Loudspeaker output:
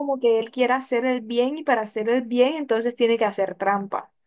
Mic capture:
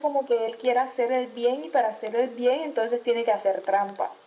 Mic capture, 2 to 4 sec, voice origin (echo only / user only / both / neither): echo only